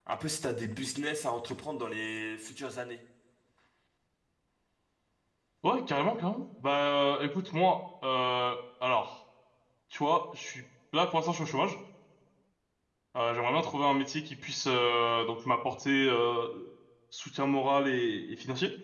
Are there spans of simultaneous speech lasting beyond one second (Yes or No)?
No